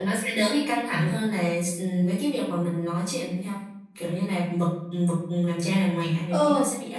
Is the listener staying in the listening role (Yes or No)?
No